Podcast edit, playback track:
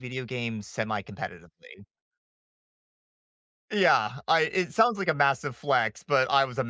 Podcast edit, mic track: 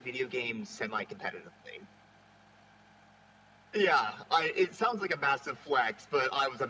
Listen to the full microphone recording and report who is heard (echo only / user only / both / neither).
echo only